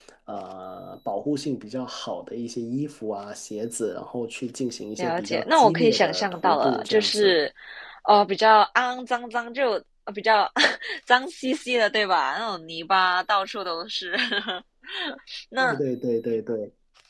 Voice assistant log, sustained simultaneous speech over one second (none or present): present